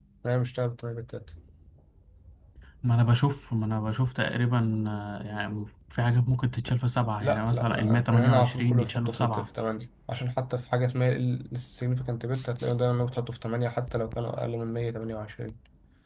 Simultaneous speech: Yes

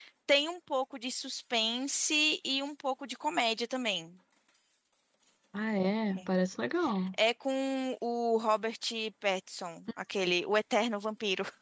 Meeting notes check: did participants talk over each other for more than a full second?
No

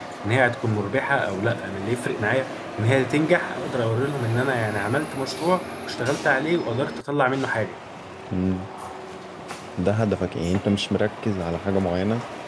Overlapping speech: No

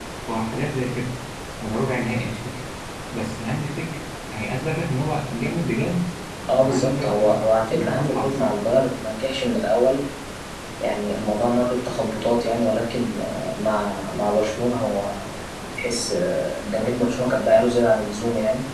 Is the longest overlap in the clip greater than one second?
Yes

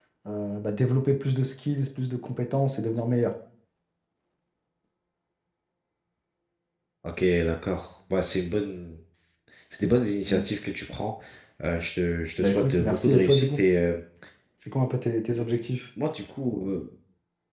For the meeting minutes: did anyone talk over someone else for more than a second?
Yes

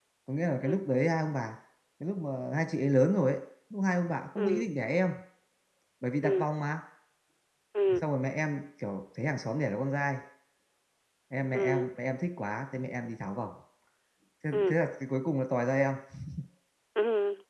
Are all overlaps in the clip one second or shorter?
Yes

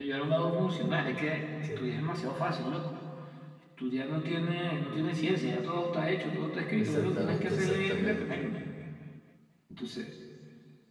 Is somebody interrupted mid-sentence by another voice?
Yes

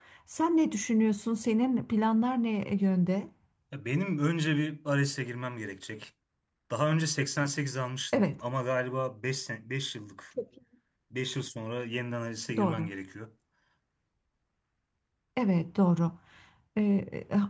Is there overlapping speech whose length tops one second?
No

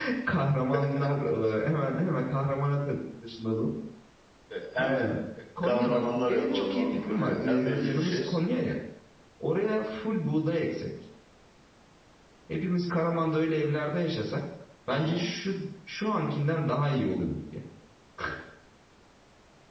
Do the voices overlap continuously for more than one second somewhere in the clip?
Yes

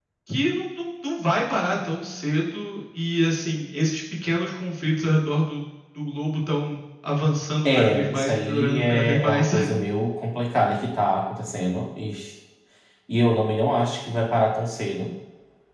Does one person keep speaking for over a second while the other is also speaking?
Yes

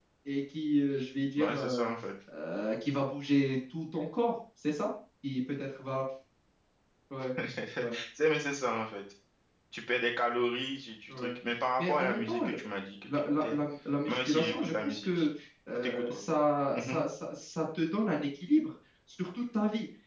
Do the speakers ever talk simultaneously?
Yes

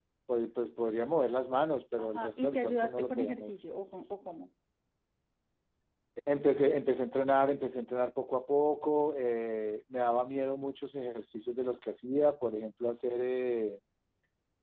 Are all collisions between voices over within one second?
No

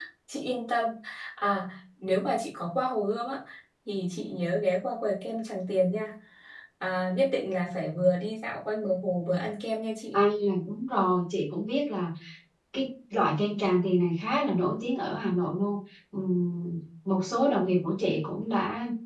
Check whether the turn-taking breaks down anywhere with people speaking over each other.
No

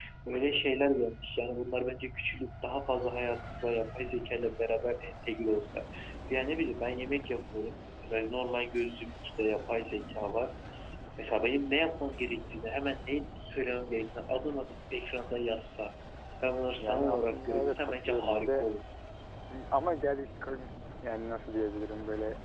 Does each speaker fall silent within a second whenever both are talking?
No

